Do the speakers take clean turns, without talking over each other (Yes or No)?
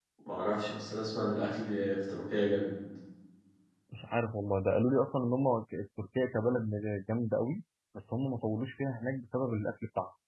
Yes